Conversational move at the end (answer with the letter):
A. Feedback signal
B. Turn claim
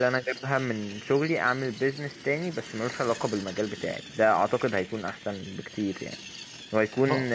A